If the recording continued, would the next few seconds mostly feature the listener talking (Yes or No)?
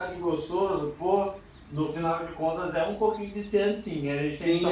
Yes